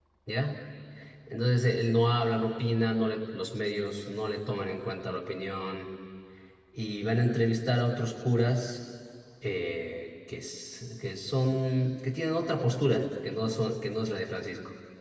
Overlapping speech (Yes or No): No